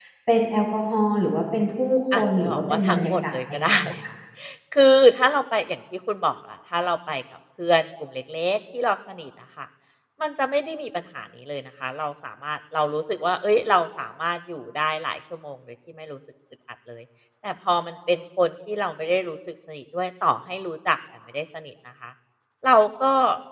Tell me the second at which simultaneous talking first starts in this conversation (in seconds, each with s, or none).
2.1 s